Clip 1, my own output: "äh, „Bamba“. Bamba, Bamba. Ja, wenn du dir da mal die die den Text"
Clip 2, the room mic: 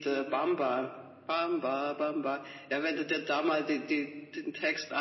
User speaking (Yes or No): No